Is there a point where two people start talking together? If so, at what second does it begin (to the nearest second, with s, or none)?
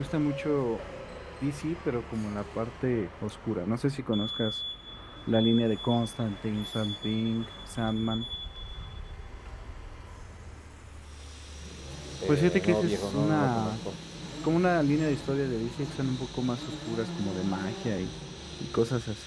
12 s